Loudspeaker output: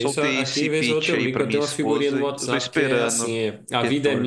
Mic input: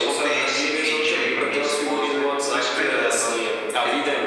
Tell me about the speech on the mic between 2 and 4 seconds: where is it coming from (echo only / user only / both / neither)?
echo only